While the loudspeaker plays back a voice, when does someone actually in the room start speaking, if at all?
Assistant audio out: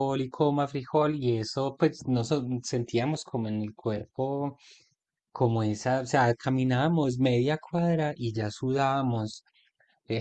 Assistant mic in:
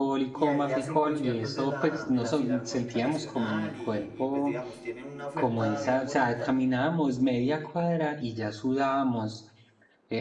0 s

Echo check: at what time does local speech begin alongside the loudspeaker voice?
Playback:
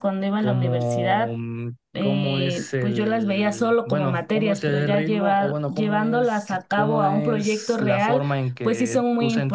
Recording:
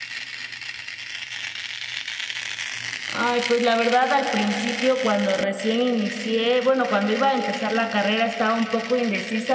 3 s

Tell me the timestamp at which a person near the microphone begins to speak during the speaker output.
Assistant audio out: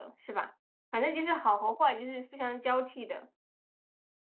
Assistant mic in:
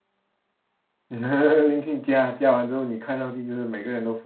1 s

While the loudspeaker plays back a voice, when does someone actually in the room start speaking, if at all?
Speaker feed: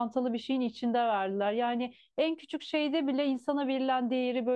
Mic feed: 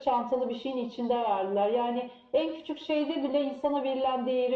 none

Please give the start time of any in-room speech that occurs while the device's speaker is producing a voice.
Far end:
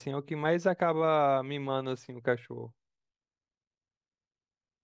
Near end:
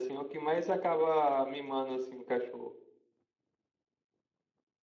none

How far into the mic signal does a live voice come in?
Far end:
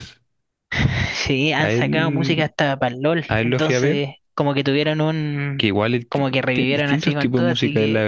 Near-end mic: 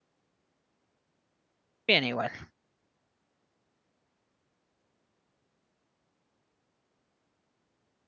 2 s

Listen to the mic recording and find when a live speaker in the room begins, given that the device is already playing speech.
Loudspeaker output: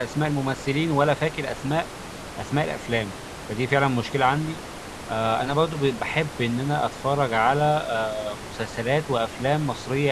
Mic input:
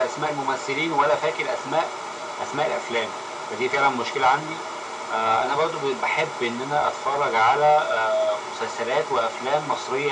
none

